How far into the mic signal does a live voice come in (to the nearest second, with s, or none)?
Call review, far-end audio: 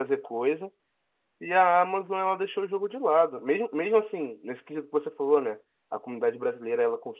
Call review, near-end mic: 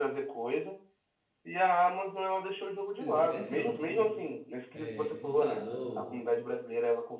3 s